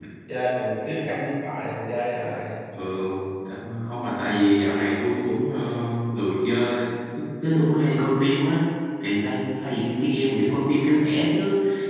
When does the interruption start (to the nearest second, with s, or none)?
none